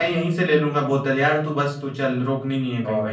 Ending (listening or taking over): taking over